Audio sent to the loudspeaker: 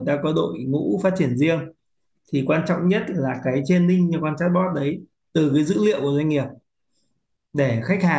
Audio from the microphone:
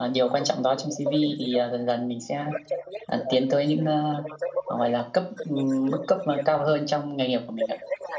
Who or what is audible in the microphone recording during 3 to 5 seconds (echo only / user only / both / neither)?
both